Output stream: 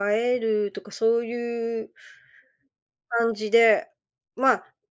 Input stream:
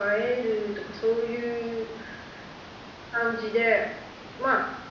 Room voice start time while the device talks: none

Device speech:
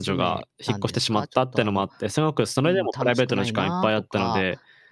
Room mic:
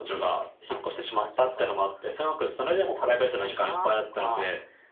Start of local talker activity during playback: none

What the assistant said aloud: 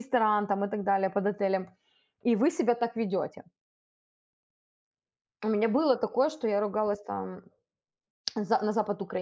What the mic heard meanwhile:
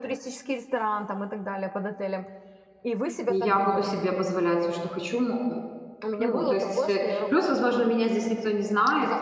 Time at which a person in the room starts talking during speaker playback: 3.3 s

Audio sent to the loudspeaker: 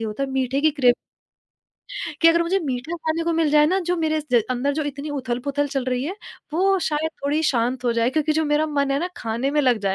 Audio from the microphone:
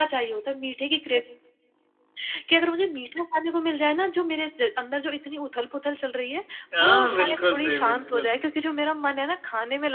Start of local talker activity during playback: 6.7 s

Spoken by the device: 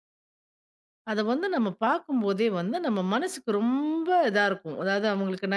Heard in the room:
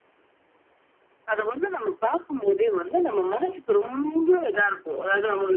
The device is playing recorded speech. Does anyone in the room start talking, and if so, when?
none

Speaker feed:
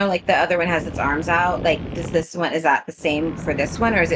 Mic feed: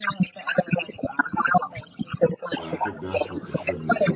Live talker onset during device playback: 2.6 s

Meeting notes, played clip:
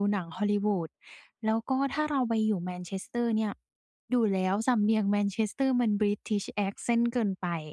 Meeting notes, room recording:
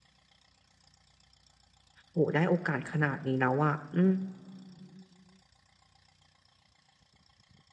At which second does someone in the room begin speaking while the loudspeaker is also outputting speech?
2.1 s

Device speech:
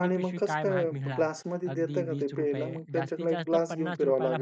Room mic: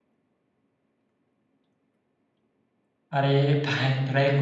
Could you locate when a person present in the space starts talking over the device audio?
3.1 s

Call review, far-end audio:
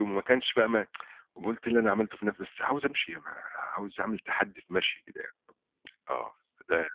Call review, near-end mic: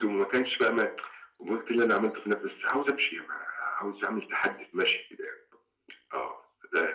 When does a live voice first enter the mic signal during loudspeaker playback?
none

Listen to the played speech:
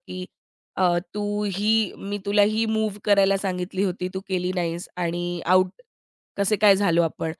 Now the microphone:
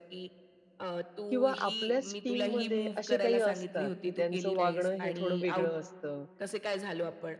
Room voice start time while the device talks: 1.3 s

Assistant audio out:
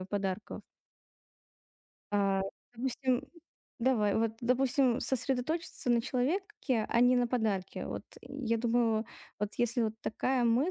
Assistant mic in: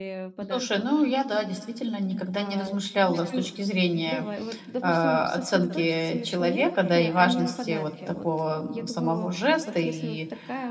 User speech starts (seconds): 0.5 s

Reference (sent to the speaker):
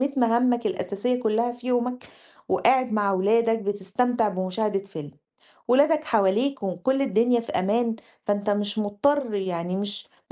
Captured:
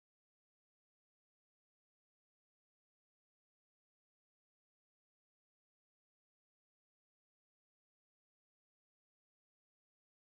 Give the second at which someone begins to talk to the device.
none

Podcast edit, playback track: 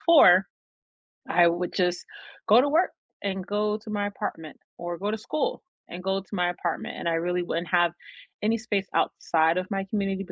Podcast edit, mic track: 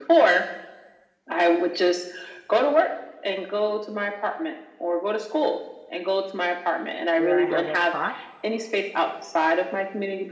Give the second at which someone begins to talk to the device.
7.2 s

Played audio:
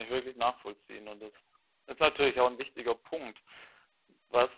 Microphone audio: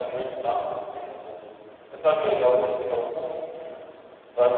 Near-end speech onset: none

